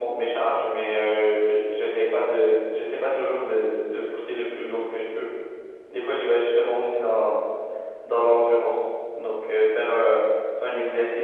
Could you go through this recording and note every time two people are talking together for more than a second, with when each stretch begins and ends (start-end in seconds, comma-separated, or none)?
none